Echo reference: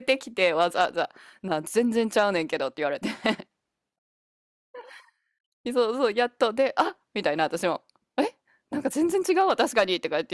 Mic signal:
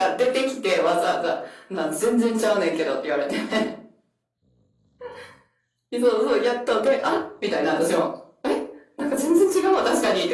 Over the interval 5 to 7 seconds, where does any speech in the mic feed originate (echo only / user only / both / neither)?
echo only